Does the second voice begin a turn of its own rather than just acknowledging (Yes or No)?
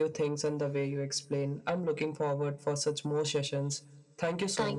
Yes